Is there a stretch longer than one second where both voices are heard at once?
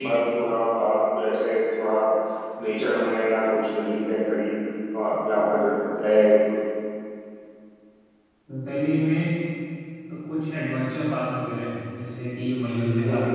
No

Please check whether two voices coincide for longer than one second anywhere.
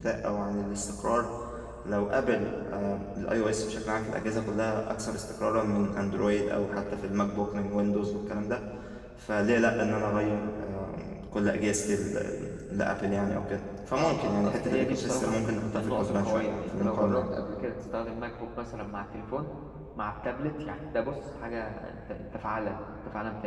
Yes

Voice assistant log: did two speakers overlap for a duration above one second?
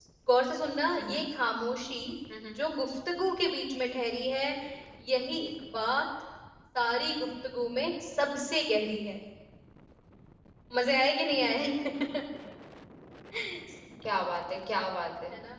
No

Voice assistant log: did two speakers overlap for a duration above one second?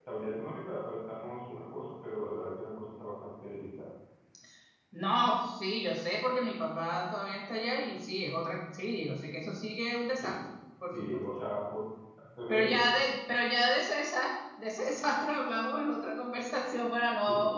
No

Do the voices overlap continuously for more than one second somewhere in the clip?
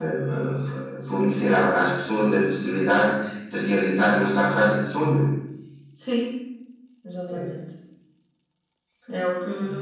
No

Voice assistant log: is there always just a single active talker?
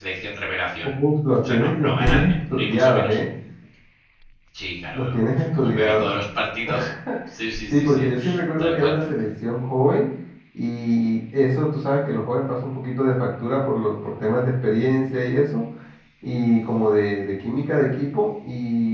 No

